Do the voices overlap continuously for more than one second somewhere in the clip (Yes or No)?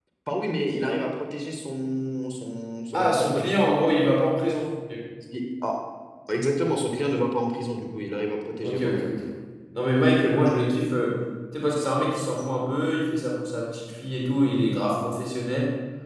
No